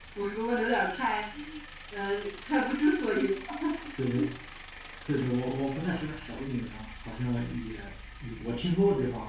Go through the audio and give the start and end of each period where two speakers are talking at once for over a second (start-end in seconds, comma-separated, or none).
none